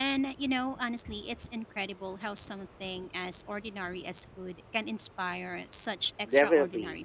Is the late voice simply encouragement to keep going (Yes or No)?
No